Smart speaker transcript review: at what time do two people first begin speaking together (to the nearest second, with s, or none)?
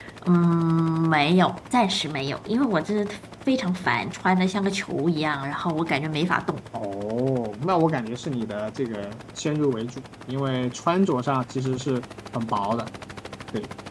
none